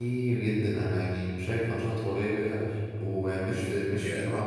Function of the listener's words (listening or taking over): listening